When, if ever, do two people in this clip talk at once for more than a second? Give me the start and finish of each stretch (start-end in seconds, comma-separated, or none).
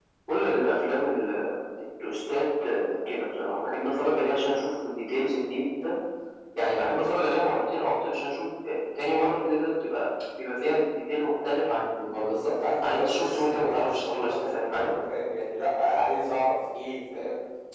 12.8-14.9